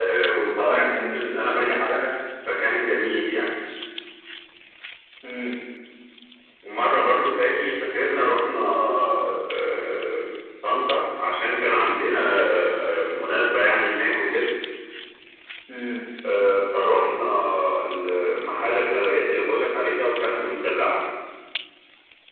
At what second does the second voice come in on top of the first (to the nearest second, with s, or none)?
1 s